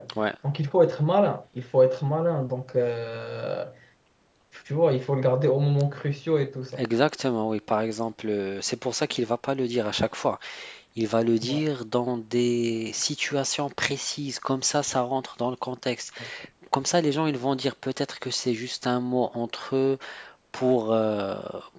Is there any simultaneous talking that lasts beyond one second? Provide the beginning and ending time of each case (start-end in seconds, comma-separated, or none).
none